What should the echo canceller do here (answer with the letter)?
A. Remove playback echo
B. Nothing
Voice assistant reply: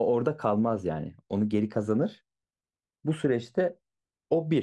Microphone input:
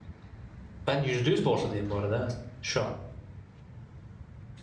B